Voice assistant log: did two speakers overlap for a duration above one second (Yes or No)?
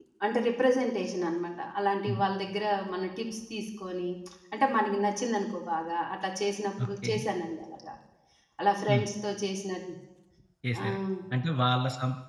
No